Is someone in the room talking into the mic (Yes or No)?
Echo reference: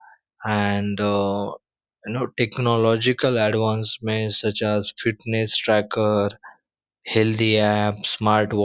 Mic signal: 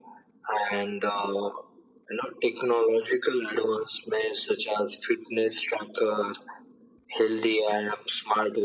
No